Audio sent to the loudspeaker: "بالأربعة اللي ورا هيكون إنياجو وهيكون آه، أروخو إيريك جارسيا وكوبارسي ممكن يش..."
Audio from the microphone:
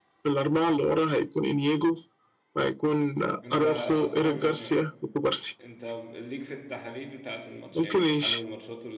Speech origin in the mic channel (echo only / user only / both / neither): both